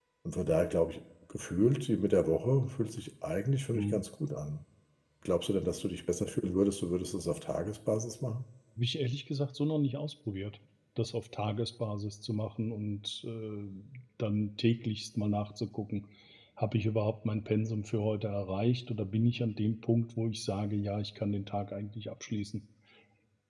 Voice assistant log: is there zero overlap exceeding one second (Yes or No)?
Yes